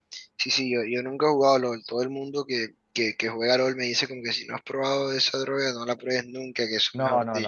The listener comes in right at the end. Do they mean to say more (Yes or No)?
Yes